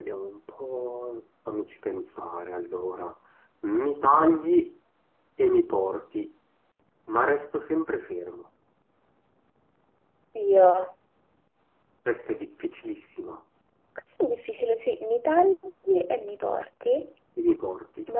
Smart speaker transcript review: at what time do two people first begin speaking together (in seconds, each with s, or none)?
none